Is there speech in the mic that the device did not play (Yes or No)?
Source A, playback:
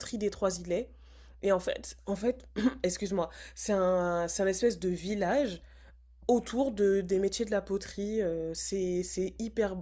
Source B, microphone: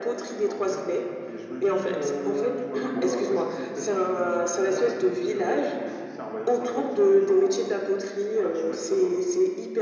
Yes